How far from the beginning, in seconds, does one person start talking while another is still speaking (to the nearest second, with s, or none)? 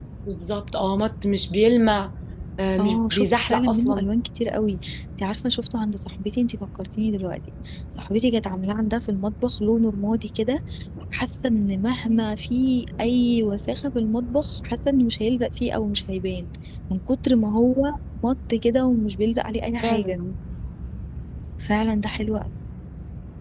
3 s